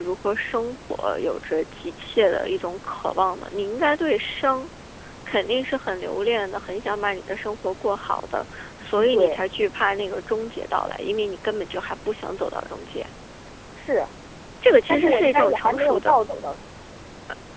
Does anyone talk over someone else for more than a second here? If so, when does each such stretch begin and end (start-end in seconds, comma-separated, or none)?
14.9-16.2